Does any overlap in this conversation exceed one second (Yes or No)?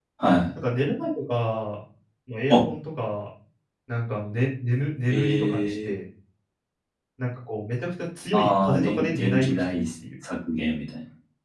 Yes